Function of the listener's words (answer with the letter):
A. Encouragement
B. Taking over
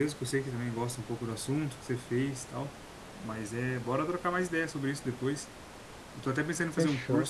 A